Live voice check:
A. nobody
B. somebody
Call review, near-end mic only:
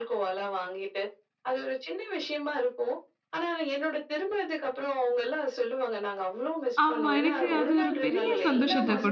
B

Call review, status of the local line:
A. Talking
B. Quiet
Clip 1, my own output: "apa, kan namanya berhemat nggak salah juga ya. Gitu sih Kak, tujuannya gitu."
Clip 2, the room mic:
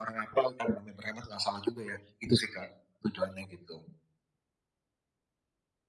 B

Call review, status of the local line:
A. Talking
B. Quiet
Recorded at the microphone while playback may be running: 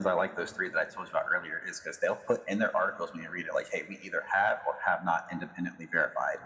B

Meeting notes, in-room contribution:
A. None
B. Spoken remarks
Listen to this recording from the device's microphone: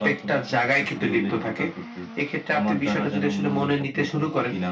A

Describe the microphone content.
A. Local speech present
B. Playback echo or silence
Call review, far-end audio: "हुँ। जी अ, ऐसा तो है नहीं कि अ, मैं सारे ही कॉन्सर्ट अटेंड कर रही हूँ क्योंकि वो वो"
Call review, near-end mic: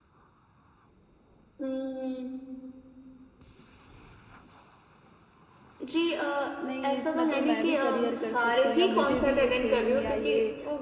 A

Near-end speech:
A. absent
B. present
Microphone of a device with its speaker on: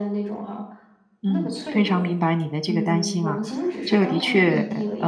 B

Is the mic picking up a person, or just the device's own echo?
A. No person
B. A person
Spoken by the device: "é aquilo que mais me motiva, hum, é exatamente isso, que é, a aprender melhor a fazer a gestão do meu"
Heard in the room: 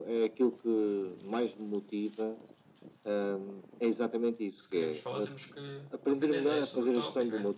B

